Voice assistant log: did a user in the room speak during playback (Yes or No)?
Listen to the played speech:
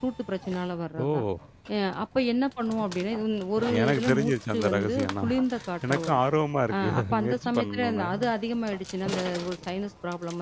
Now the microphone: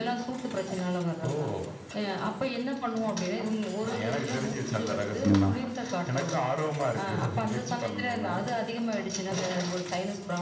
Yes